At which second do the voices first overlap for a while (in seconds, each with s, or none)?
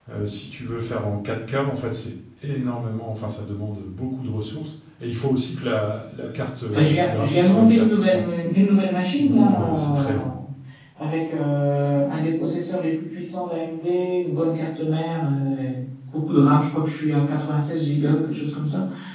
6.7 s